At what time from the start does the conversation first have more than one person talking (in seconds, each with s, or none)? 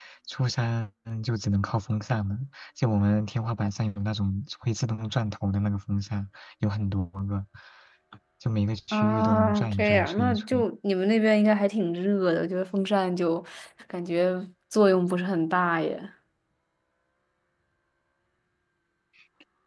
8.9 s